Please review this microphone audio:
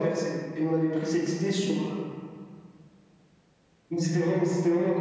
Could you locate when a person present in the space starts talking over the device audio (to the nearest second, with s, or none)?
none